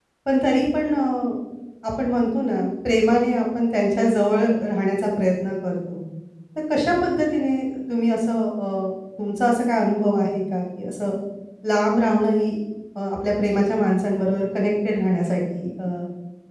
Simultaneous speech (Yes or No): No